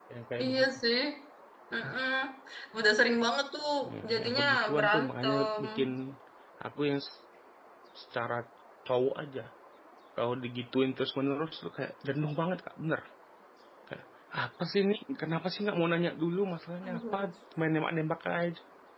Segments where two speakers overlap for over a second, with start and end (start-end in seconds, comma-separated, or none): 4.1-5.6